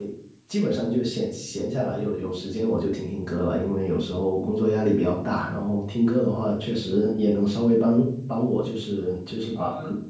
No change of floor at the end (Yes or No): Yes